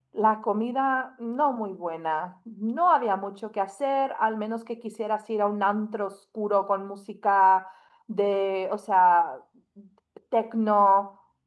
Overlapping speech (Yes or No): No